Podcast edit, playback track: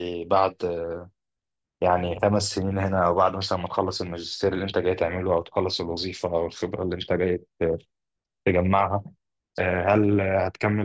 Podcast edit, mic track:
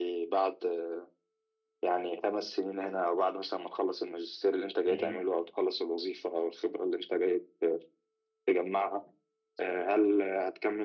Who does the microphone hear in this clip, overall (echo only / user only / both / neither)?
both